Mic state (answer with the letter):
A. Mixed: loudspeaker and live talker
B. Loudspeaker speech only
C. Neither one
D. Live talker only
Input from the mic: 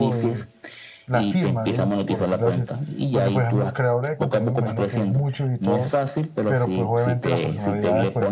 A